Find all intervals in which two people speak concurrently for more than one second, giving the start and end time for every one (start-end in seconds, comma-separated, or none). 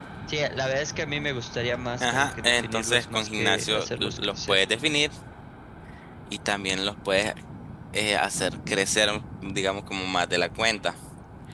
2.0-4.6